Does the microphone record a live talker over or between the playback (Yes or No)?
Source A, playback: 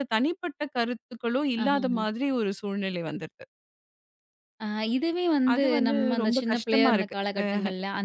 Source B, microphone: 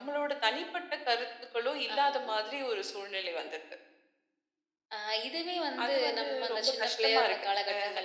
No